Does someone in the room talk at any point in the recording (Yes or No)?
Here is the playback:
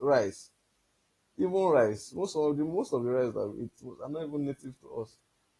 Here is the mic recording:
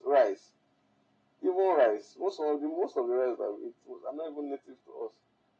No